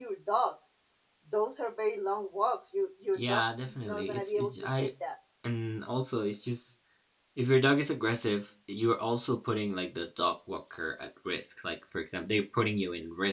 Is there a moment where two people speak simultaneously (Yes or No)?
Yes